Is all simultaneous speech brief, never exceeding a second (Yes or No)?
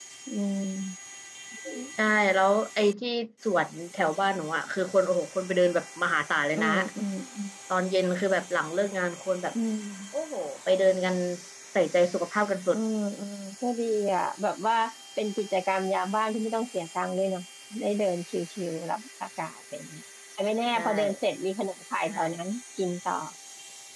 Yes